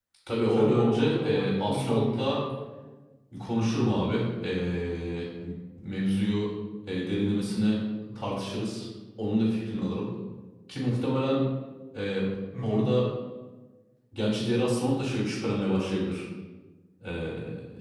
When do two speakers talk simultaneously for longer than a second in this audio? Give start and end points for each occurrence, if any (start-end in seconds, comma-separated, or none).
0.5-2.3